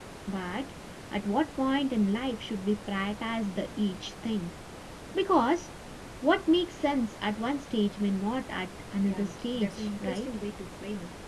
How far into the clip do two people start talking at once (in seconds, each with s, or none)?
9.0 s